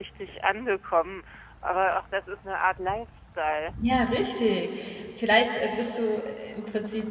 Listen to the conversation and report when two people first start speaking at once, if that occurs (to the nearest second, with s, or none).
none